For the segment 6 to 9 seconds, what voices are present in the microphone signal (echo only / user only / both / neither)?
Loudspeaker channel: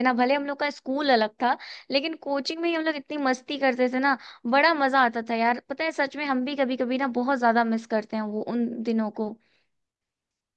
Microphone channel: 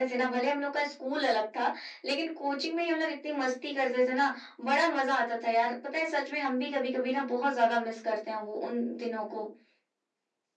echo only